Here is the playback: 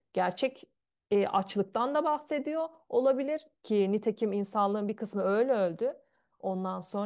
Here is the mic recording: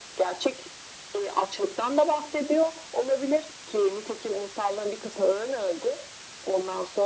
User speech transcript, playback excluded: none

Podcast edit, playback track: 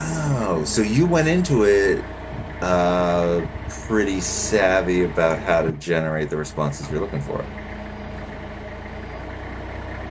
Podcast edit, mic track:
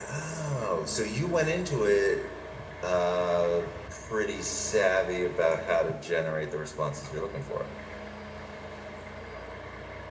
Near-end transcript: none

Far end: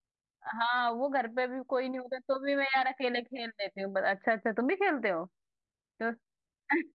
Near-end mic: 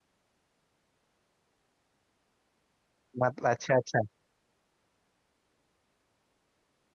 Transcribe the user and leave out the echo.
मतलब अच्छा अच्छा

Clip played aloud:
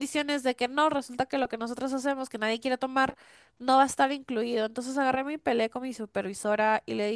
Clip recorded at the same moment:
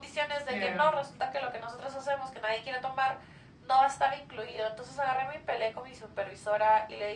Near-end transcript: Claro.

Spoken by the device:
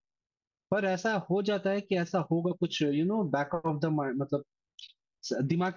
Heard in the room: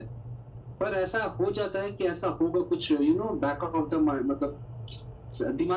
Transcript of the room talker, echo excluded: none

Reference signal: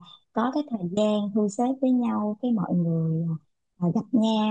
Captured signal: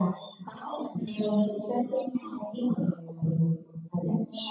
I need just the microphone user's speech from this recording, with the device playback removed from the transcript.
ừ

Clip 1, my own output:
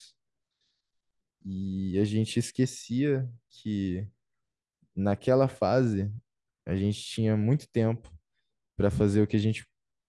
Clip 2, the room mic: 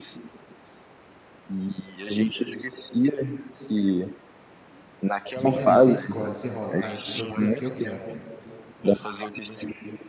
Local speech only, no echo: Você tem ali, você escolhe, você rola. Ah, esse produto aqui eu quero,

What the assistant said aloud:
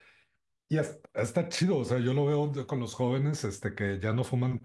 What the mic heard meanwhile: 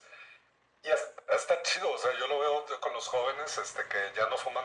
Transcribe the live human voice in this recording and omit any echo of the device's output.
none

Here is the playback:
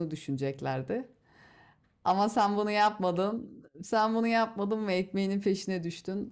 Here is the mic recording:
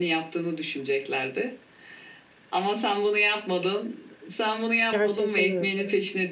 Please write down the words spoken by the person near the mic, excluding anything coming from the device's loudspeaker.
gerçekten öyle.

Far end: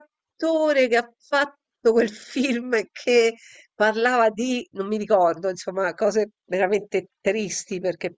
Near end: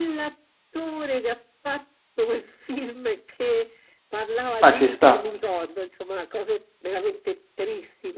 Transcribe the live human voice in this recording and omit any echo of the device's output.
ma ci sta.

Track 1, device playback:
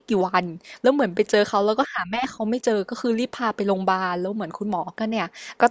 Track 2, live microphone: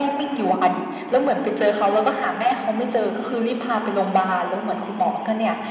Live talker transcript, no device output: none

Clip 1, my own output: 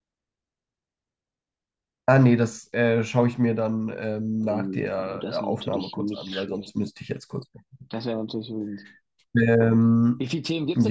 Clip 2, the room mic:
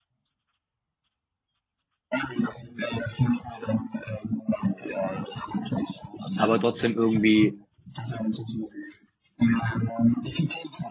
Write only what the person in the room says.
aber trotzdem irgendwie,

